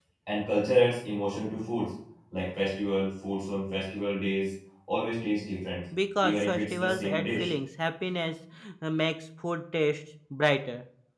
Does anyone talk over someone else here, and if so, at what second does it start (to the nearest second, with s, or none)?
6 s